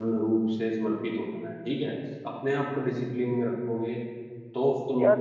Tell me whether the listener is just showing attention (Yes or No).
No